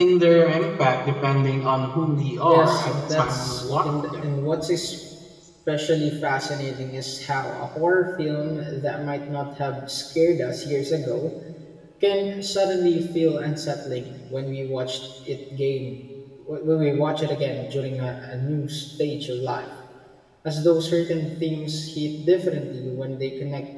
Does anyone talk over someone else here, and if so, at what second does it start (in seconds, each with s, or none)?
2.5 s